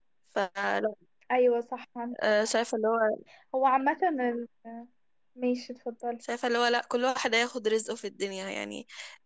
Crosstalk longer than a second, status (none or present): none